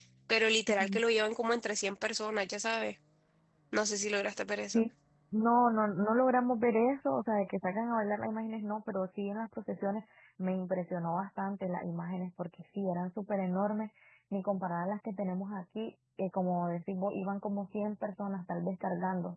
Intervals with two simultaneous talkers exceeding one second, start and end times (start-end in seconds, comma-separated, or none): none